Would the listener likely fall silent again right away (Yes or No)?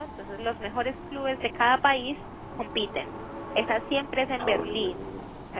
Yes